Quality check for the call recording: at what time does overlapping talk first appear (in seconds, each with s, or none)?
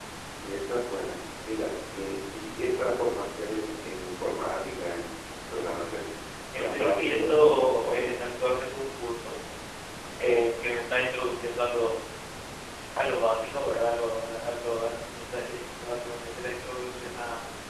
6.6 s